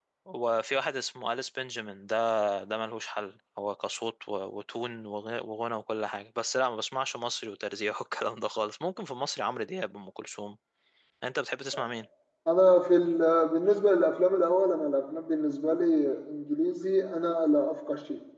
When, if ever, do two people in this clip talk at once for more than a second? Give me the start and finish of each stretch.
none

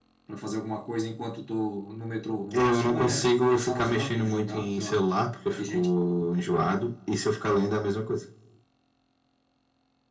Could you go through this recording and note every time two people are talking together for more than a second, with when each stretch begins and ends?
2.5-5.0

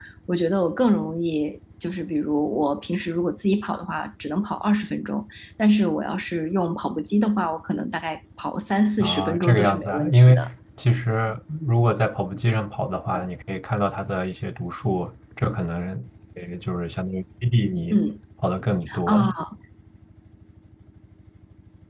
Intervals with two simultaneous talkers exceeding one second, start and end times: 9.0-10.5

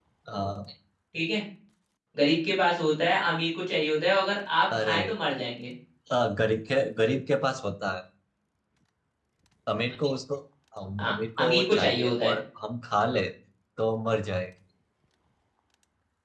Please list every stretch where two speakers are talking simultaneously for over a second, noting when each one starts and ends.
11.0-12.4

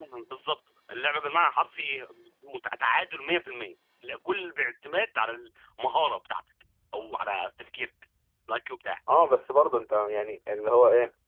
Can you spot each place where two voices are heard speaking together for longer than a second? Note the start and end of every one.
none

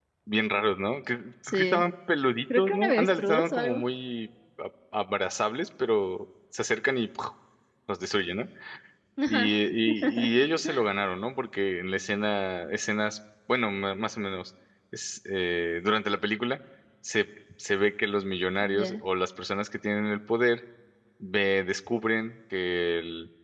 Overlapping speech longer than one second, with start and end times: 2.6-3.8

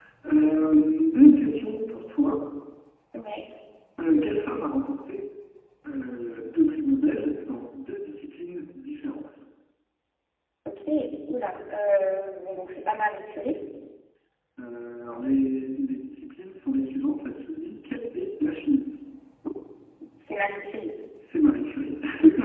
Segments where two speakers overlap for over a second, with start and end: none

